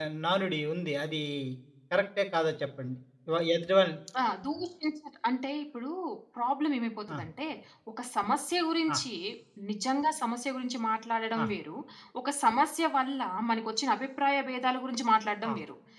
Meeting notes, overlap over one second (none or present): none